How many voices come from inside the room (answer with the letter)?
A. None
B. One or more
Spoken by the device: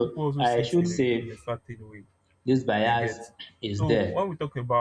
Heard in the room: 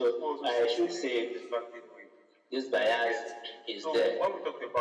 A